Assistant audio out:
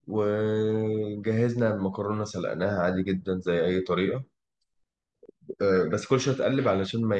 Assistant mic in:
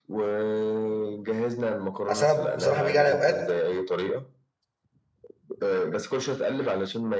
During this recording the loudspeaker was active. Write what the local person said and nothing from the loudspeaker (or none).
اصل انا بصراحه بيجي علي اوقات